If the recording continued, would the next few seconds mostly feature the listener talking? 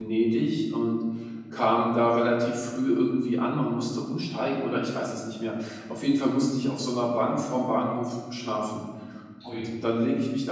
No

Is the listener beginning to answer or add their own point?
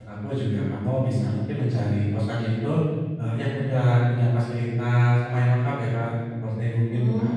No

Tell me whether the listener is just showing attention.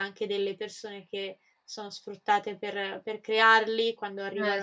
Yes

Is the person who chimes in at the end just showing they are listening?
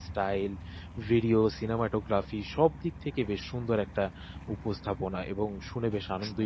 No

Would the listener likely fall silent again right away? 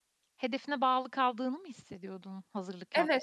No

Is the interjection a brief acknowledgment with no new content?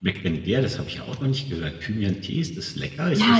No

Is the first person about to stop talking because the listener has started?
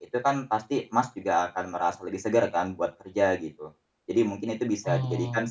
No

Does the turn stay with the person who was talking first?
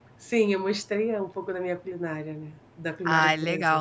No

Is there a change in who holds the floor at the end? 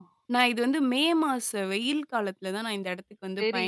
Yes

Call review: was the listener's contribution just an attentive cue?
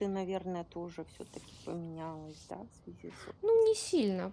No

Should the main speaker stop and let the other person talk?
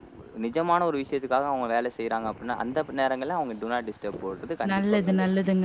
Yes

